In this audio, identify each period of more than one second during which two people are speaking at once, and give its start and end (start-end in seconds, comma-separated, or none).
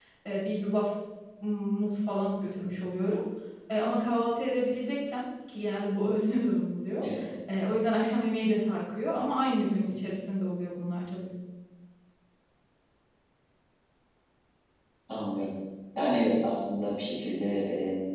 none